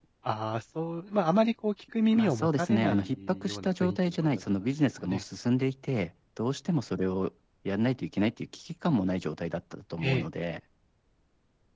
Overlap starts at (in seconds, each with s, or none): 2.1 s